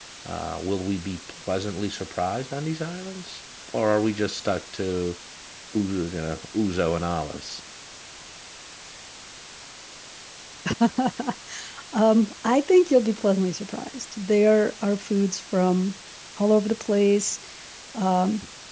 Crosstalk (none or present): none